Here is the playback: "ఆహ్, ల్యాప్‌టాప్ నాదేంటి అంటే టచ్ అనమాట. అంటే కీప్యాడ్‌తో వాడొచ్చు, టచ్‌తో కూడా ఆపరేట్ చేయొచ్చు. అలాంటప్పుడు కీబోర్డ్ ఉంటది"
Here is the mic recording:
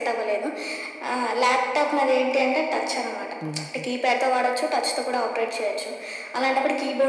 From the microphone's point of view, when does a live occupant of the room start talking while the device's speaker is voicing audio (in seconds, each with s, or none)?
3.4 s